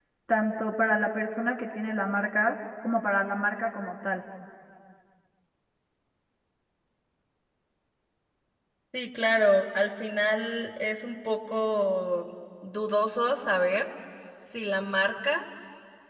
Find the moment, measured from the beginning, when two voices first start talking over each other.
none

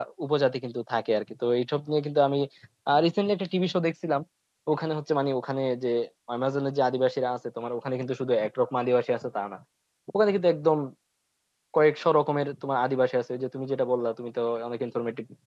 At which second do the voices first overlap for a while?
none

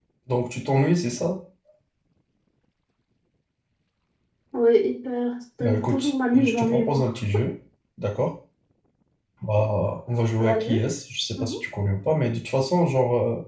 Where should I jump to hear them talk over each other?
5.6 s

